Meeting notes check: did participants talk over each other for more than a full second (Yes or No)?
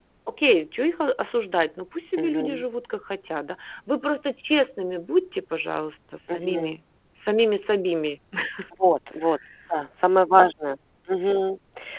No